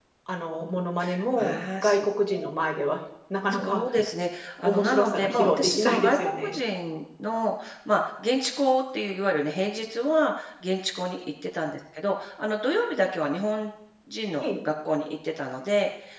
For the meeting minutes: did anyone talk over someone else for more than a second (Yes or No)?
Yes